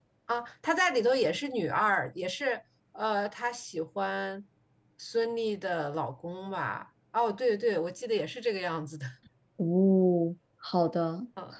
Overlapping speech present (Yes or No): No